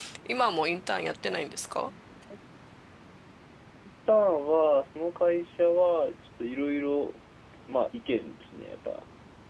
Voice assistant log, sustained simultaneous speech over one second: none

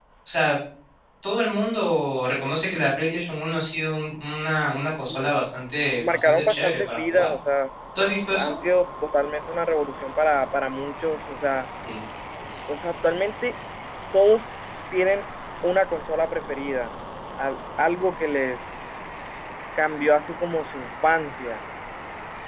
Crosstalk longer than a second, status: present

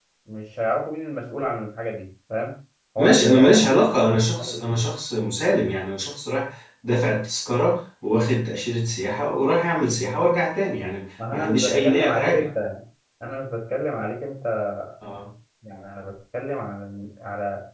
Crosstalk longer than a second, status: present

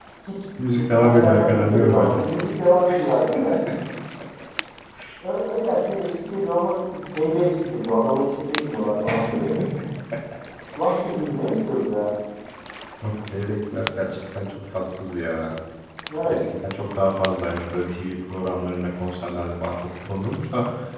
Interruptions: present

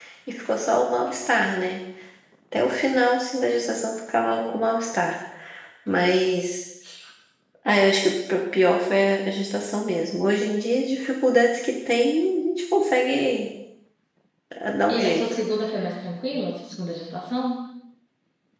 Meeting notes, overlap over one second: none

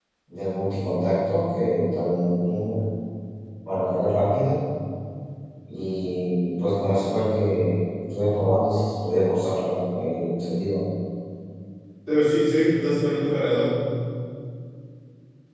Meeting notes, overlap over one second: none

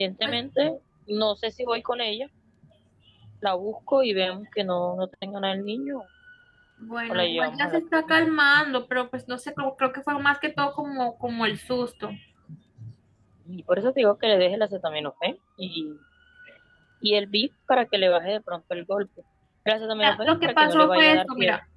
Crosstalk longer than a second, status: present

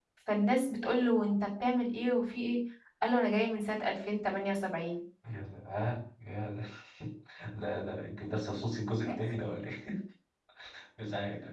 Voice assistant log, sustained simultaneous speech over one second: none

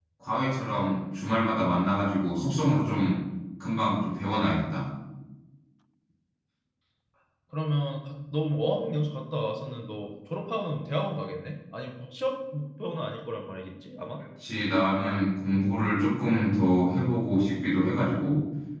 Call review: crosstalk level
none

